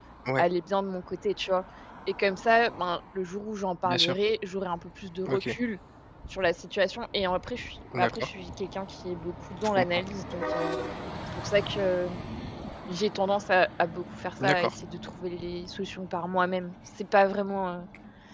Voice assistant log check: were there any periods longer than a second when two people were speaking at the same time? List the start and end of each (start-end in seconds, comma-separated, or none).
none